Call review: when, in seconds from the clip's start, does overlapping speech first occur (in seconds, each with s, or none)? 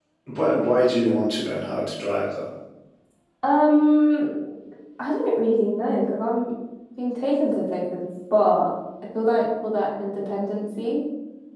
none